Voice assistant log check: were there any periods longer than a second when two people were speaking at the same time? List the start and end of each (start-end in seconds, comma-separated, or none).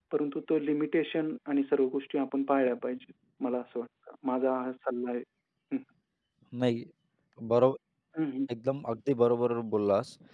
none